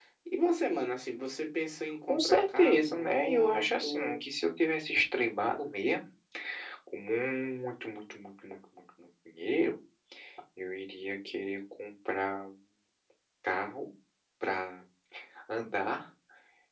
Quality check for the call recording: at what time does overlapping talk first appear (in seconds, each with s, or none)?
2.0 s